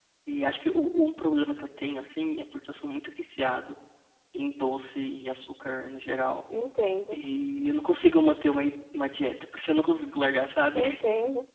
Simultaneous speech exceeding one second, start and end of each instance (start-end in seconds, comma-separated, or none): none